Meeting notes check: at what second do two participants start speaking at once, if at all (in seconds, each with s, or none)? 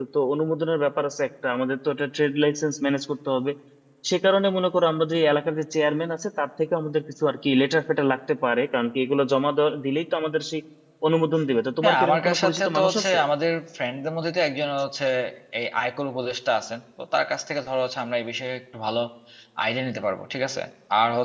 11.8 s